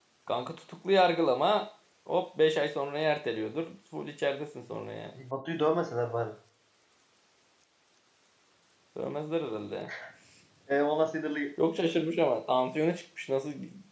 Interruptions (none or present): none